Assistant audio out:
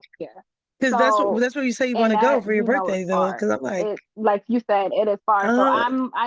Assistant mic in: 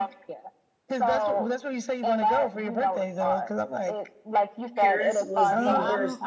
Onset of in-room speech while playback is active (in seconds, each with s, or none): 4.8 s